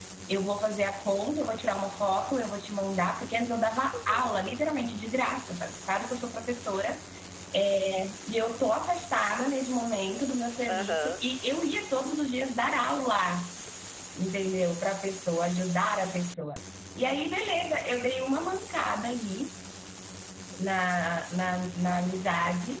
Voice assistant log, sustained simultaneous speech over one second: none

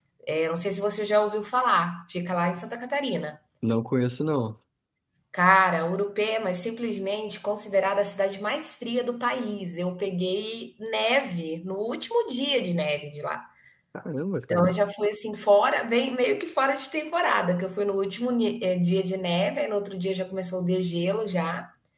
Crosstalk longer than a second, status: none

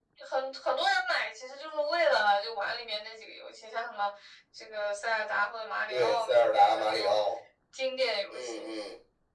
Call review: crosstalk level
present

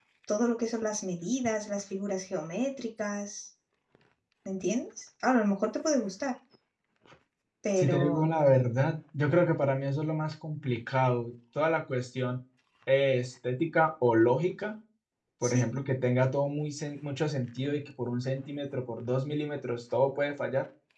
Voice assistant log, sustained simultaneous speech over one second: none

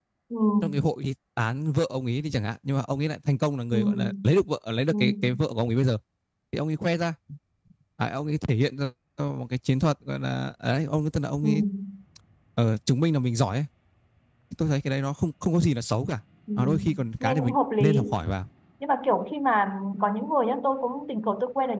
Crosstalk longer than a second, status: present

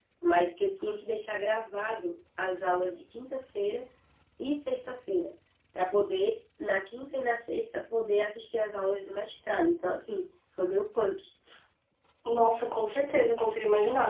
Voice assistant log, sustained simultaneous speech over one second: none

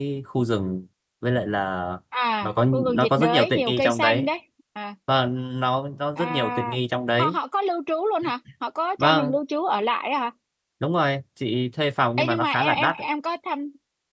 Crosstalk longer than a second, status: present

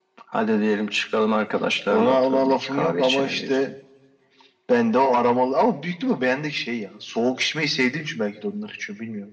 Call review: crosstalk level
present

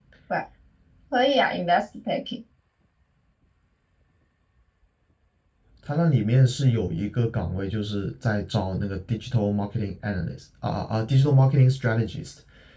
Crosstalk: none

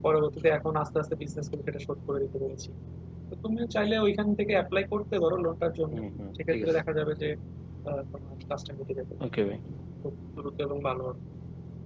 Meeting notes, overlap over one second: none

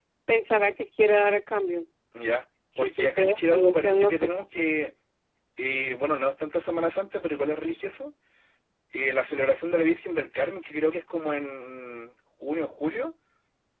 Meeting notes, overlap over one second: present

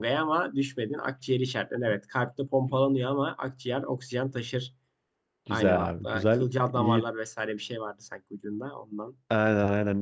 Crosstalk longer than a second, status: present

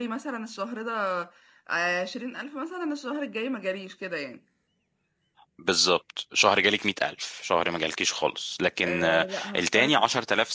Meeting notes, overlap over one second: present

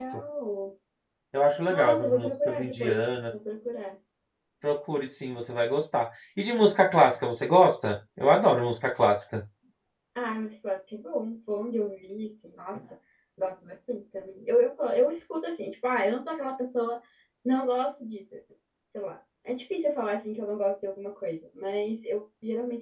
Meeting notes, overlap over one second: present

